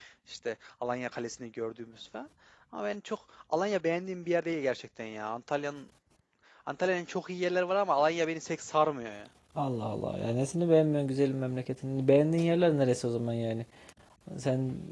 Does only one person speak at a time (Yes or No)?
Yes